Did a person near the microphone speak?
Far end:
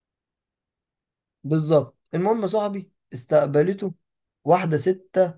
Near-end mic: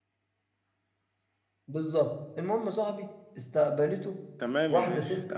Yes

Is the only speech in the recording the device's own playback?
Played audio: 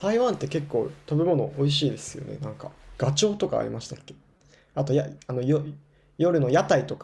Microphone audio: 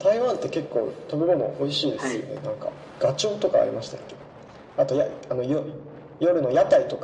No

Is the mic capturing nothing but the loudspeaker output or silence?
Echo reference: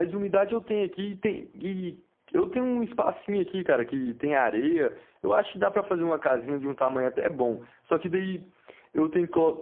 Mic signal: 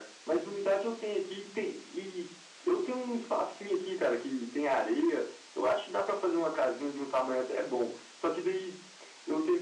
Yes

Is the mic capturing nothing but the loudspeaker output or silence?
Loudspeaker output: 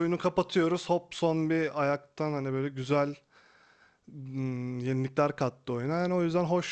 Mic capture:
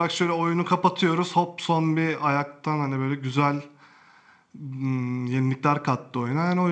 Yes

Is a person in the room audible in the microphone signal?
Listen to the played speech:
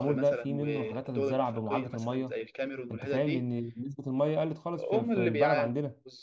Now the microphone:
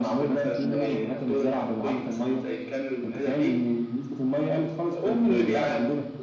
Yes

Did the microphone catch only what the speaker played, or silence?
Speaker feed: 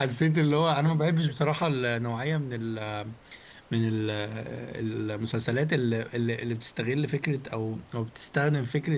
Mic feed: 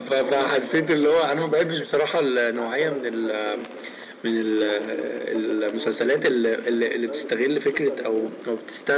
No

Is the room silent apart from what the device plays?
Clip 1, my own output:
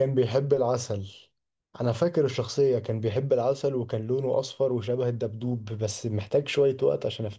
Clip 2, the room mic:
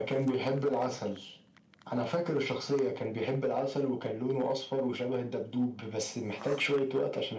Yes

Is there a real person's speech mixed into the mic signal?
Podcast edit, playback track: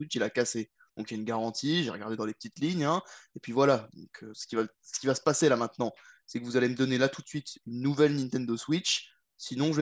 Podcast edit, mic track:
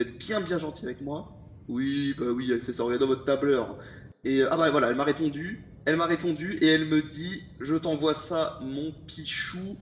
Yes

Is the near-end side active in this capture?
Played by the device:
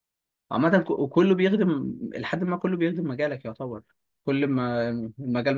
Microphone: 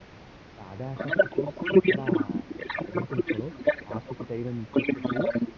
Yes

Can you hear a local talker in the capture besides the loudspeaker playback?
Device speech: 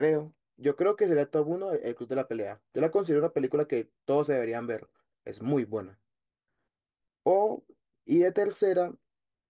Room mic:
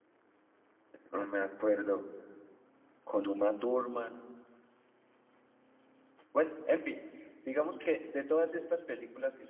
Yes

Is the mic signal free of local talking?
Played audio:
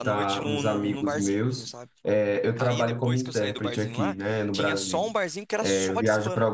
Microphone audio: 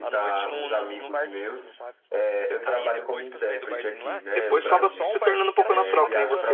No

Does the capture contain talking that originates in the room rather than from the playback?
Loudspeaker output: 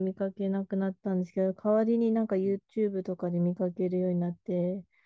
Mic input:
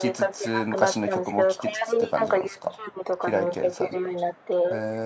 Yes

